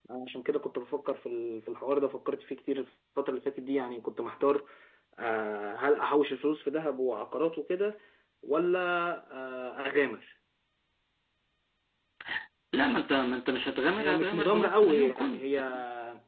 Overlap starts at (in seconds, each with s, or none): 14.0 s